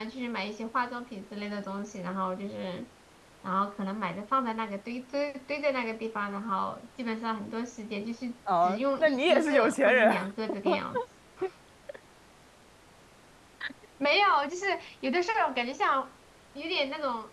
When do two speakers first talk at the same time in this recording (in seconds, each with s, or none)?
8.6 s